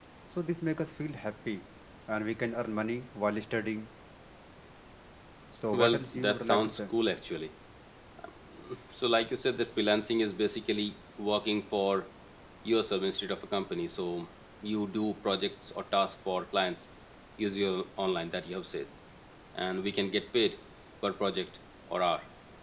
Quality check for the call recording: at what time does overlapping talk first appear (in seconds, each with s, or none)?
5.7 s